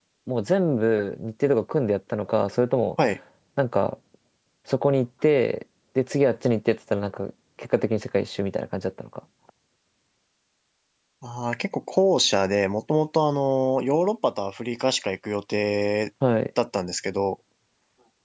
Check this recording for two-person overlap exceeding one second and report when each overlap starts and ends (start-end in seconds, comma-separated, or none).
none